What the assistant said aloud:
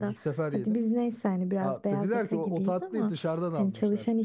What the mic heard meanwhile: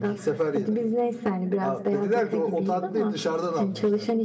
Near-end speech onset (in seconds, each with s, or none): none